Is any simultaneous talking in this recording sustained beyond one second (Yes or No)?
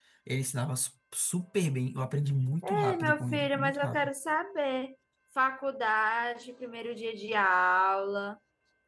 Yes